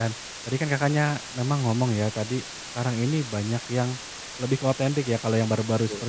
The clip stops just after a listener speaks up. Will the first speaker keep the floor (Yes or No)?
Yes